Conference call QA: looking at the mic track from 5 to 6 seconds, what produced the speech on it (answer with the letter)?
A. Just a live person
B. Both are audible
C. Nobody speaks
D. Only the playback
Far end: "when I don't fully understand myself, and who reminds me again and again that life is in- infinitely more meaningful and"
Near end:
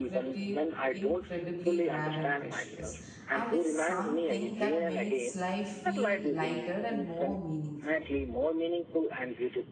B